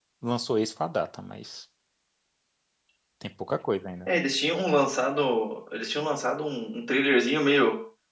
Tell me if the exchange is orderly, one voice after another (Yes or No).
Yes